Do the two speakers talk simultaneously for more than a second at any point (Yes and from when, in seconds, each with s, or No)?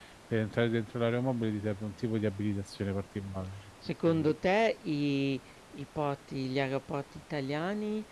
No